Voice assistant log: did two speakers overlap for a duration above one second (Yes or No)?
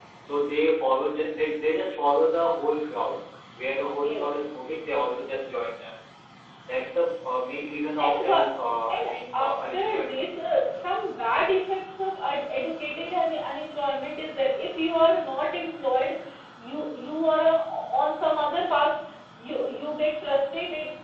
Yes